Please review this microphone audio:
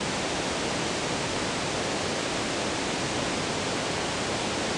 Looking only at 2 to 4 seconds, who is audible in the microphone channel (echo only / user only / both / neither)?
neither